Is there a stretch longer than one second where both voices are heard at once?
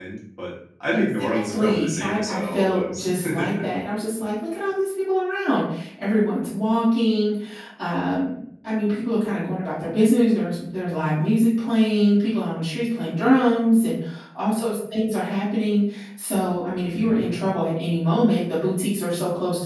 Yes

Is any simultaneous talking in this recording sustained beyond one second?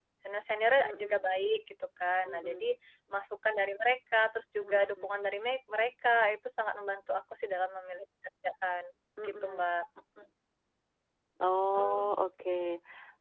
No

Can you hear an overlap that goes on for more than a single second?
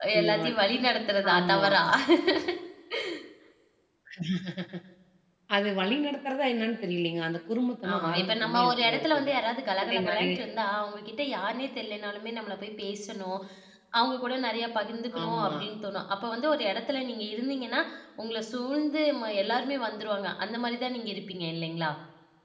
Yes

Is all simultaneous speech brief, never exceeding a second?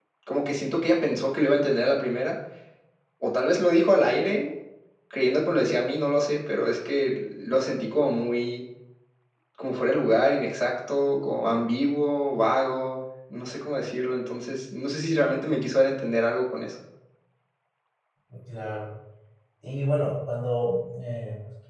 Yes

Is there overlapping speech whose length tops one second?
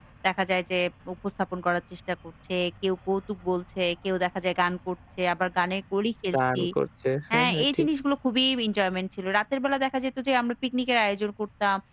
No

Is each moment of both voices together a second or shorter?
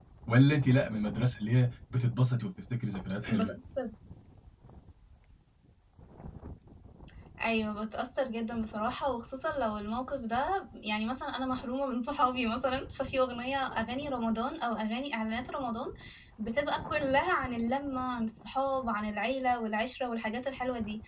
Yes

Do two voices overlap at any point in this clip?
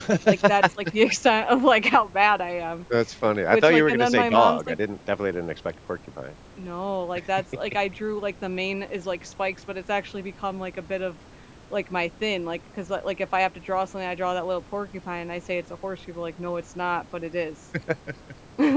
Yes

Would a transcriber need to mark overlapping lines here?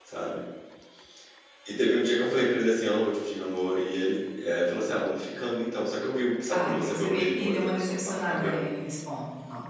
Yes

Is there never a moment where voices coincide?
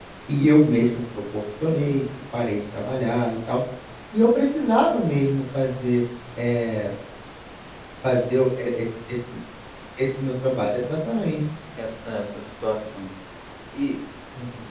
Yes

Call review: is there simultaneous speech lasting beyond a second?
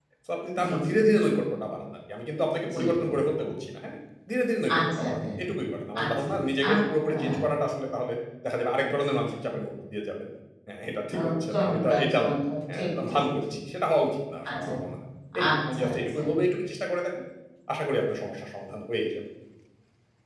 Yes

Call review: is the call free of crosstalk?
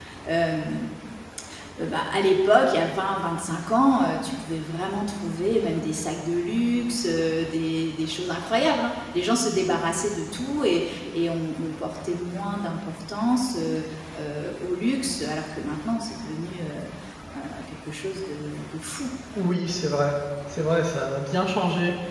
Yes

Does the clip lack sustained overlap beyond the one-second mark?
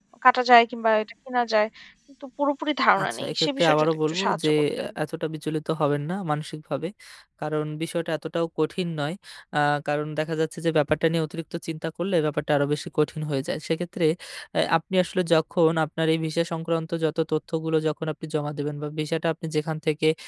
No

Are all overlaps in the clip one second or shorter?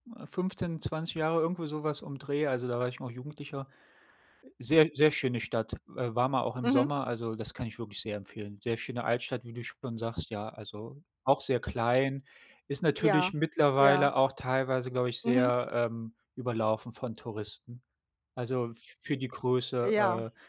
Yes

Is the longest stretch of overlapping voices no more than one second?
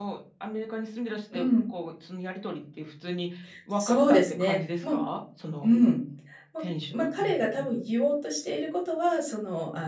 No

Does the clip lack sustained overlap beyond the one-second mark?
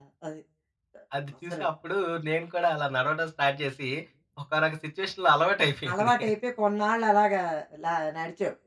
Yes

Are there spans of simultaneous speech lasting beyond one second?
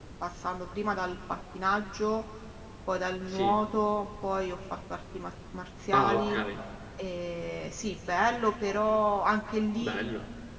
No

